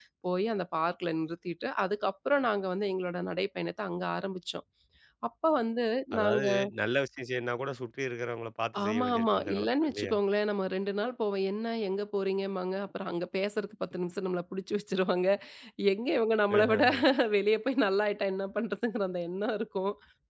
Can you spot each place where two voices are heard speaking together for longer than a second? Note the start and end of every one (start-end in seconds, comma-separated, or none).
8.8-10.1